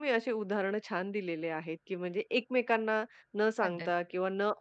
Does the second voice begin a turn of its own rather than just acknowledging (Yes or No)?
No